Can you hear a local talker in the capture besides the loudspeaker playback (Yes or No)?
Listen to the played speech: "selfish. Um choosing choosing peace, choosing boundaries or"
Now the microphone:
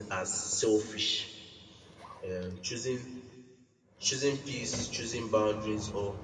No